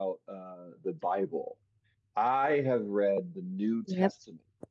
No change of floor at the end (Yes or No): Yes